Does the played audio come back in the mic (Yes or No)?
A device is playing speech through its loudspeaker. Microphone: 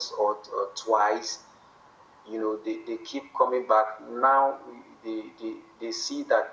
Yes